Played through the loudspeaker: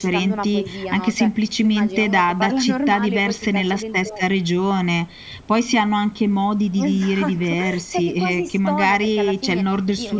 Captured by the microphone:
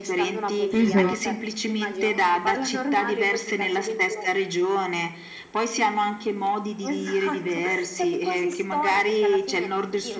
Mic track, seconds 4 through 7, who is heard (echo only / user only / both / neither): echo only